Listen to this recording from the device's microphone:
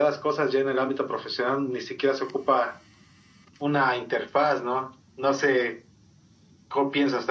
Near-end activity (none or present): none